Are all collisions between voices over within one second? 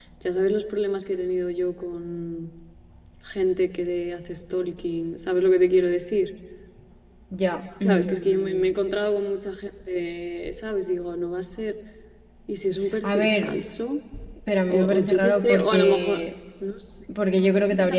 No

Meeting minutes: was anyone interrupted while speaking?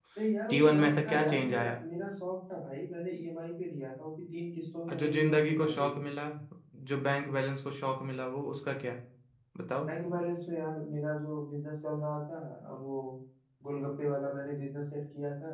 Yes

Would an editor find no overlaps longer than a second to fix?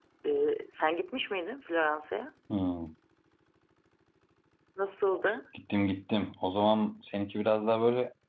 Yes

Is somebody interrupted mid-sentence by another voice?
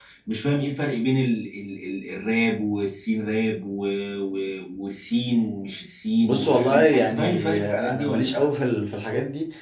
Yes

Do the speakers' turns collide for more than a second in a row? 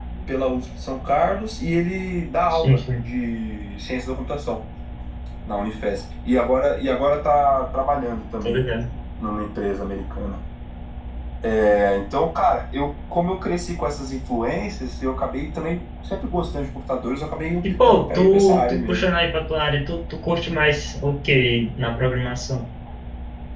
Yes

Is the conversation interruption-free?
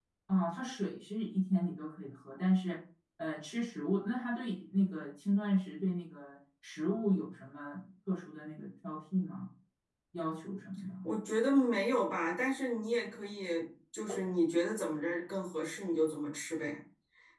Yes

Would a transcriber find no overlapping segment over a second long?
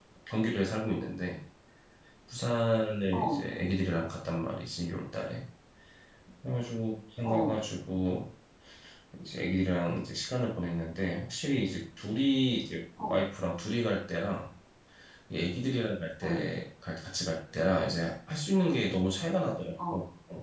Yes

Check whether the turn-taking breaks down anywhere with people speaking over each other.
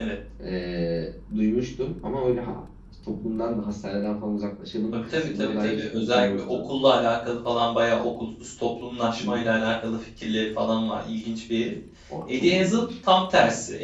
Yes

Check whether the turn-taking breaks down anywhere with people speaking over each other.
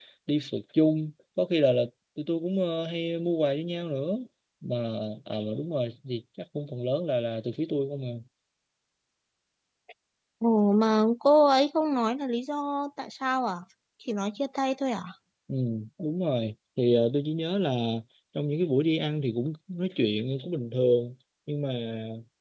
No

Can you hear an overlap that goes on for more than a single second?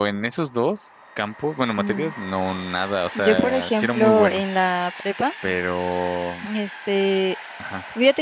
Yes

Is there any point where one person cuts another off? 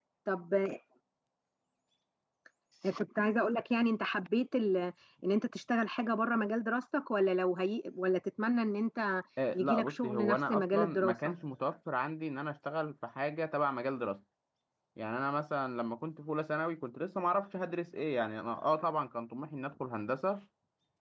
Yes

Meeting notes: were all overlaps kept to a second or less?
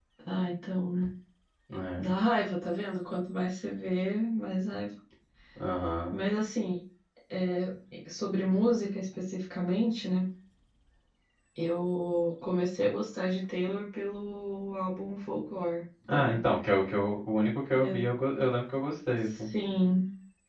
Yes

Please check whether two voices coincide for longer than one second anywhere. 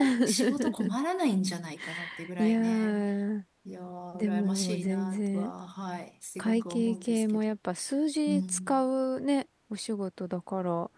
Yes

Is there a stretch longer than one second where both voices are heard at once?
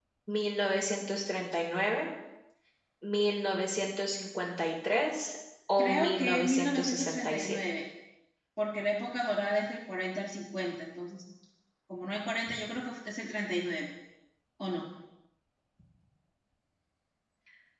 Yes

